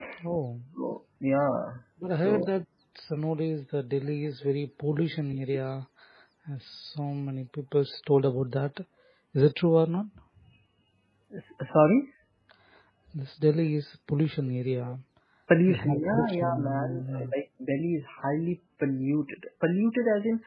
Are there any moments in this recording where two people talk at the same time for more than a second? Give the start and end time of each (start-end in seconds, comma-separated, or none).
15.7-17.3